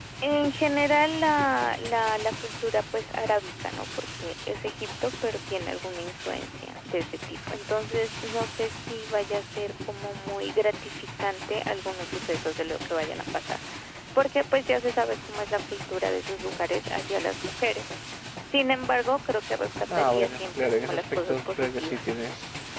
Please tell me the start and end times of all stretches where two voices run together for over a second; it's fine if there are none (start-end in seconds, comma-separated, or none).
19.9-22.1